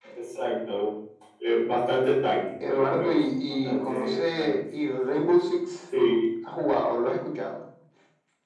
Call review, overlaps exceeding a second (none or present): present